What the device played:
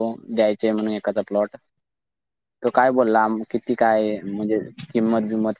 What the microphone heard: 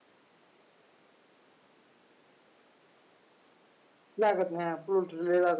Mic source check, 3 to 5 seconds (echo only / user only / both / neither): user only